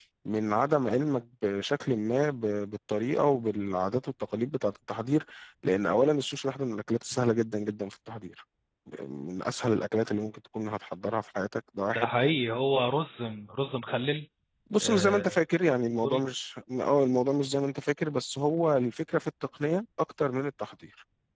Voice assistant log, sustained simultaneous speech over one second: none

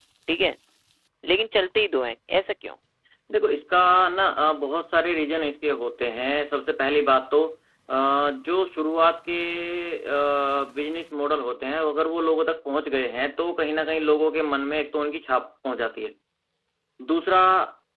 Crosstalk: none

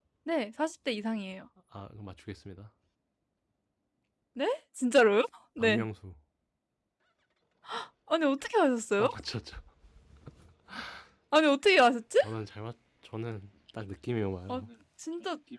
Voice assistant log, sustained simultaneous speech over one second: none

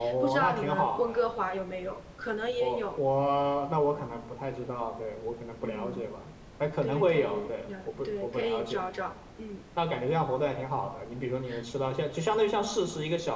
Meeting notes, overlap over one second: present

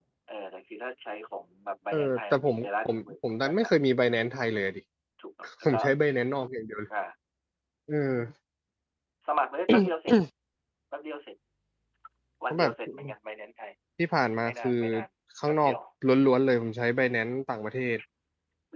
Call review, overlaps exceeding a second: present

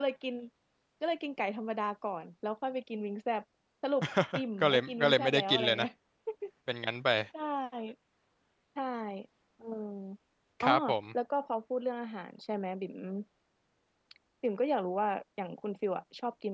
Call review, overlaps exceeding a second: present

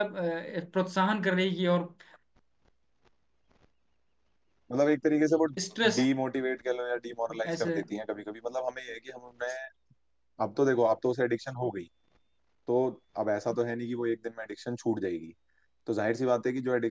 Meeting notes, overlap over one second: none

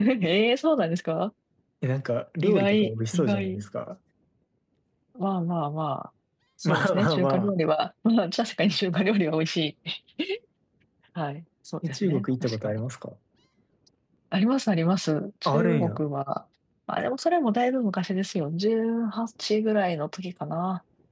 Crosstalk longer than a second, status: present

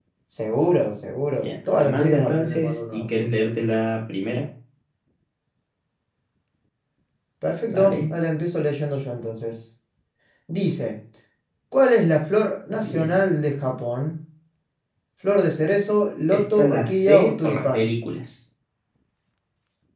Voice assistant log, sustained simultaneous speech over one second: present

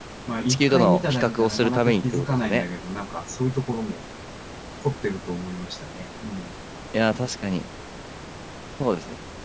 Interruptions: present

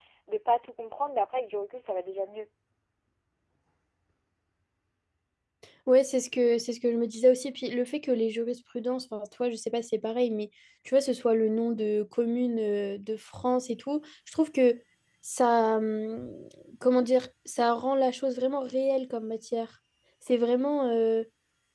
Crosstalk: none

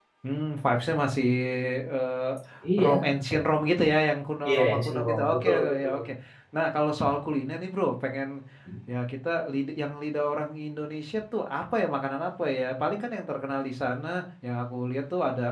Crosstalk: present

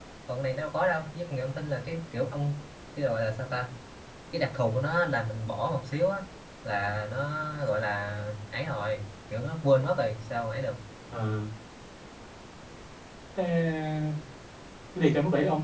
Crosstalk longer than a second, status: none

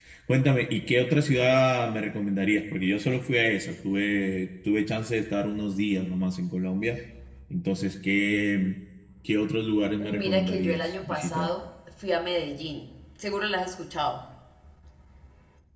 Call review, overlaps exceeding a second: present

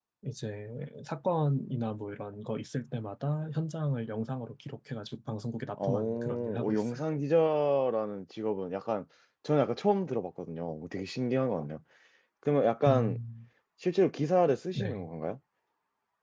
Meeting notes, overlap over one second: present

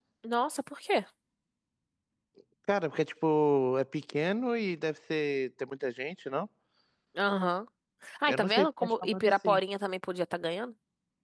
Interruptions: present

